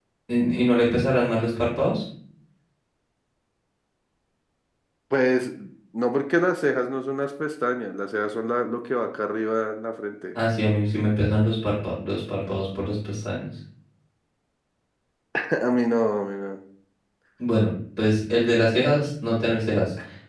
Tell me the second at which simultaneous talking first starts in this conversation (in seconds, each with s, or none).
none